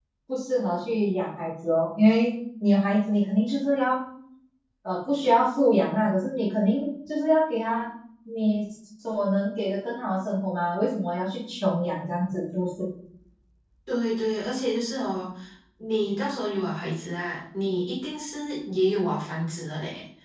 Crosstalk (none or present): none